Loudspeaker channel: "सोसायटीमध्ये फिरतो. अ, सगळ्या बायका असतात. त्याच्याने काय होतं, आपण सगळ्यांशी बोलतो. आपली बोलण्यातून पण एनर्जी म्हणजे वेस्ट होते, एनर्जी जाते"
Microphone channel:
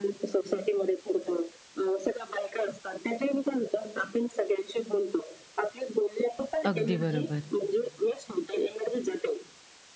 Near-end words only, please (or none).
अगदी बरोबर.